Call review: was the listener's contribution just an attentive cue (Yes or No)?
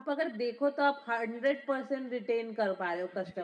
No